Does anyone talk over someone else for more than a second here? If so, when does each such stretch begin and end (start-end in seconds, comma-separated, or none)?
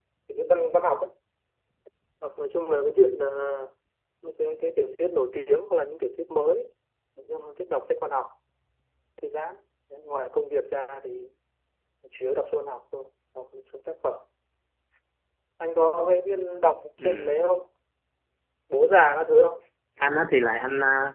none